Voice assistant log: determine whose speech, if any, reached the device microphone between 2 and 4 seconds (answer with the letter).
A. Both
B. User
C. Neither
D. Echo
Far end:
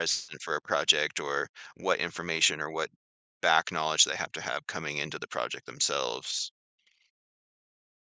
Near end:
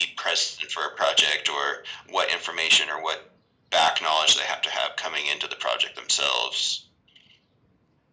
D